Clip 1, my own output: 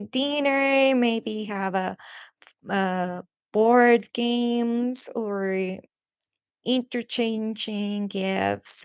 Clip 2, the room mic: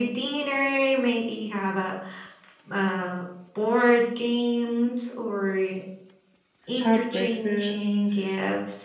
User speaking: Yes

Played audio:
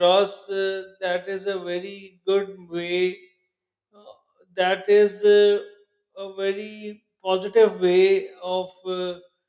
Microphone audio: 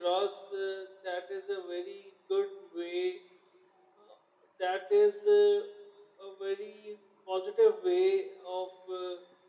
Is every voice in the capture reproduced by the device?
Yes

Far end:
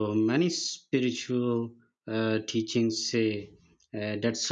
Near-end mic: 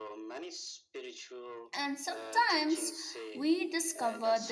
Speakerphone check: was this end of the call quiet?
No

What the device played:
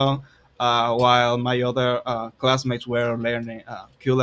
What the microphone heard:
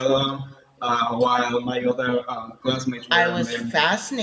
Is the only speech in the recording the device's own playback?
No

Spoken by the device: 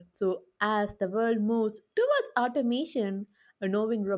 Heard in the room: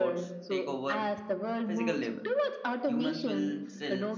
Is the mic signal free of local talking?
No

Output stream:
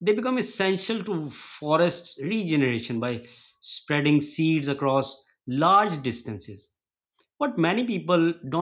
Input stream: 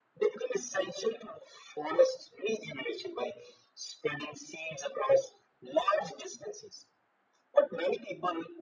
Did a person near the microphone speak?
No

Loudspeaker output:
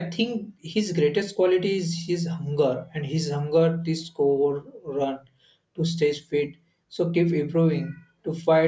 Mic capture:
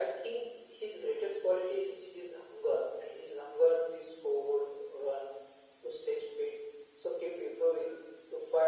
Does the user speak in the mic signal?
No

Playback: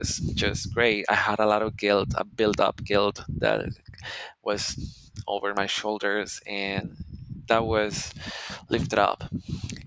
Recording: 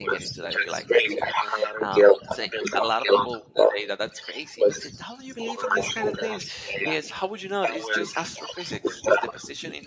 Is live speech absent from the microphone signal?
No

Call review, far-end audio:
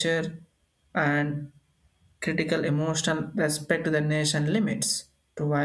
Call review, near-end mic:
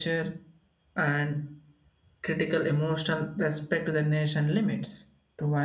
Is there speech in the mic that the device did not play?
No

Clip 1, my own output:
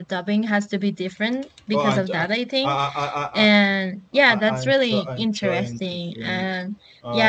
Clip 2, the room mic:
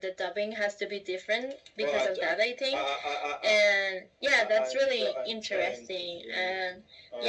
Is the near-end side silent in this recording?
Yes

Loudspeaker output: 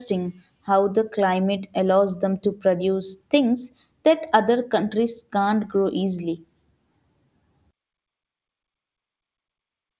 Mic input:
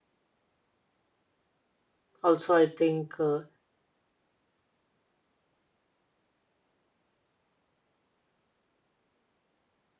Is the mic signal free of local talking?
No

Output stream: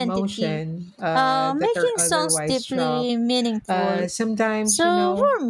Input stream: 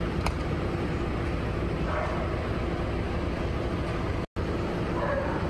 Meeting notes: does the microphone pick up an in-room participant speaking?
No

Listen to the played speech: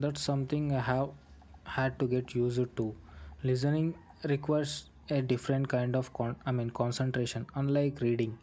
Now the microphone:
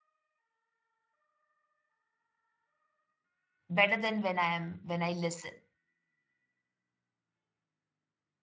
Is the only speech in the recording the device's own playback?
No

